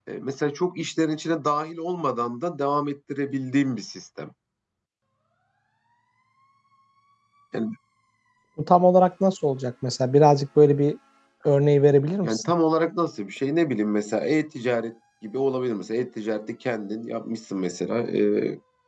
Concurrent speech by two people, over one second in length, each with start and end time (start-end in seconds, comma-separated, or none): none